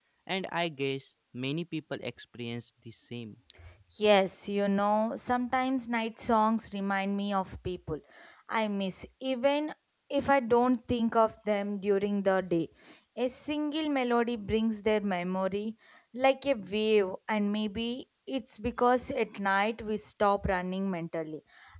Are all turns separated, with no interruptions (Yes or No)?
Yes